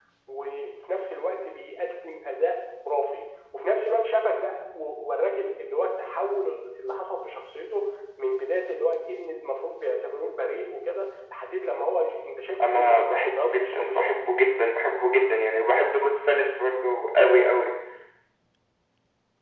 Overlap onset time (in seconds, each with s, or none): 12.6 s